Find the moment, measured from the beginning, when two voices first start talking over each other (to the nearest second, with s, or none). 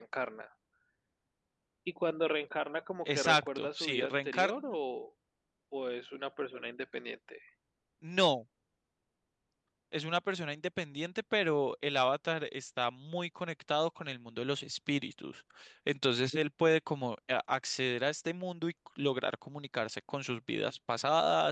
3 s